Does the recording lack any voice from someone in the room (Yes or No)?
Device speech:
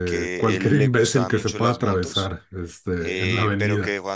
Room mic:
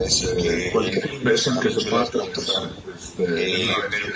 Yes